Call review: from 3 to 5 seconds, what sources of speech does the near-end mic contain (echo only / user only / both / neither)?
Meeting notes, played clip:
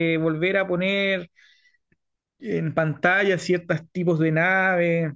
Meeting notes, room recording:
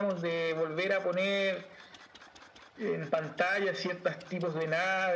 echo only